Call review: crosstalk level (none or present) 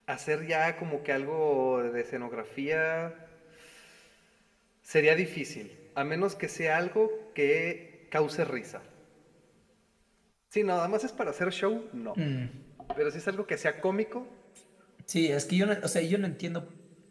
none